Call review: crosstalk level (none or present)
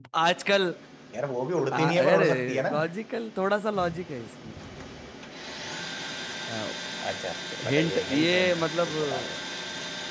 present